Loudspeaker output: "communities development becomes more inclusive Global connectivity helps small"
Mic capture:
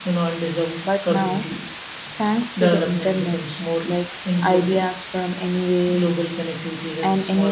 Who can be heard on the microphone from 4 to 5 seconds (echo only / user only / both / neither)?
both